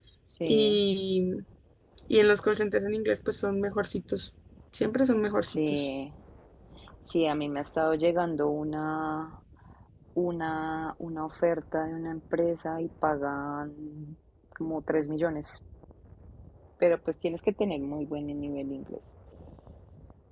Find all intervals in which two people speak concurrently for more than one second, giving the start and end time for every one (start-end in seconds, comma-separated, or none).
none